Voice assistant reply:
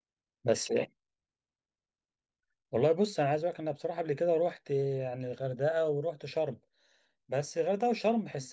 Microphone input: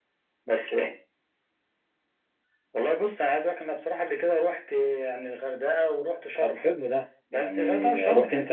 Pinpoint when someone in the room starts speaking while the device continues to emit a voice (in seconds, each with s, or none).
6.3 s